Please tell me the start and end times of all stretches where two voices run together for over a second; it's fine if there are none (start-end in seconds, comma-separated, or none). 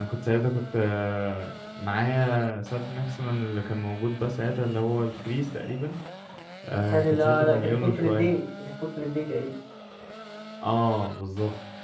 6.9-8.3